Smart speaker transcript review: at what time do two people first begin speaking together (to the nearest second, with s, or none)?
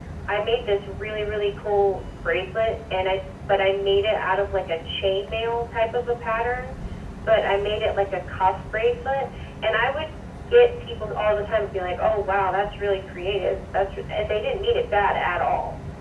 none